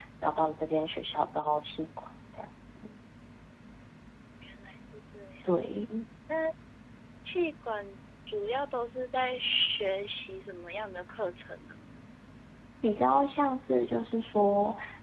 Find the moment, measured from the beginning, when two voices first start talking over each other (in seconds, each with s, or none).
none